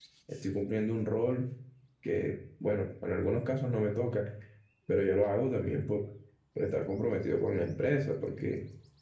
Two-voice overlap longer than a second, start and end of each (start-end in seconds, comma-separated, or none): none